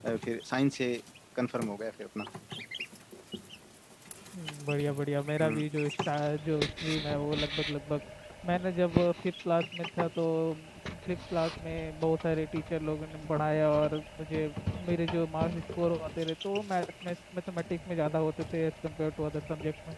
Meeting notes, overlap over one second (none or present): none